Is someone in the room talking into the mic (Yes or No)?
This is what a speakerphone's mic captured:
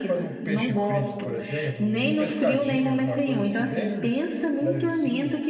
Yes